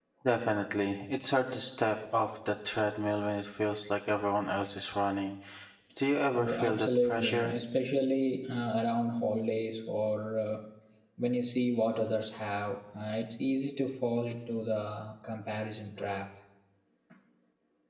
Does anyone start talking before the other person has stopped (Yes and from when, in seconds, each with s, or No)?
Yes, from 6.3 s